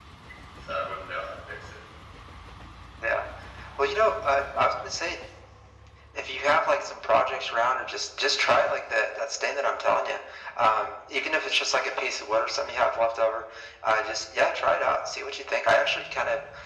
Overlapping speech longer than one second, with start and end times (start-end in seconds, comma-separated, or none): none